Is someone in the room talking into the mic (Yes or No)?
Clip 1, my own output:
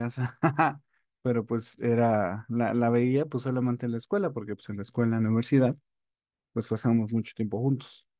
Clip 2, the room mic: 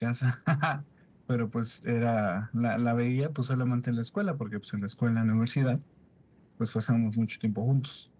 No